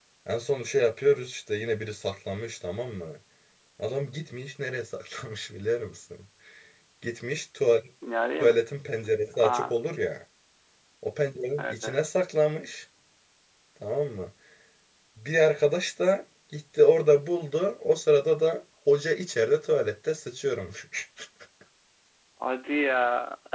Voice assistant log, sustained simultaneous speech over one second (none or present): none